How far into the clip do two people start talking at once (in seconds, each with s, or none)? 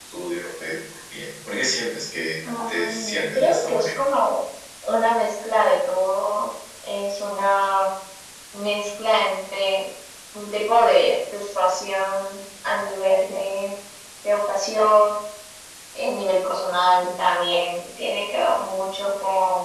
2.4 s